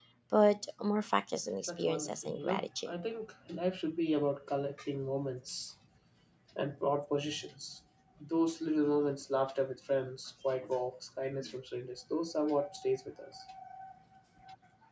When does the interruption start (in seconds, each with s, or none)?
1.7 s